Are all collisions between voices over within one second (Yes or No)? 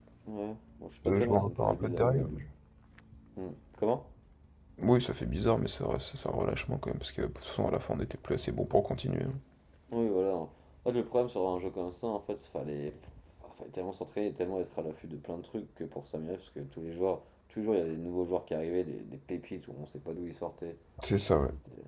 No